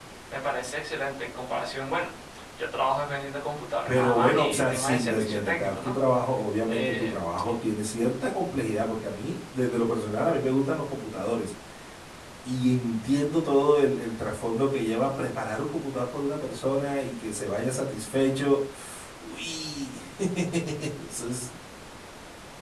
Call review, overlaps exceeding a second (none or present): present